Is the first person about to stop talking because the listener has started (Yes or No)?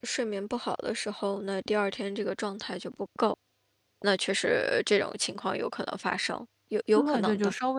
Yes